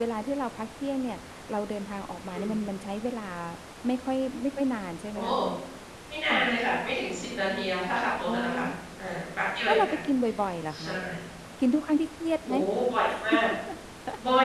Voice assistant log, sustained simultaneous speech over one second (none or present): none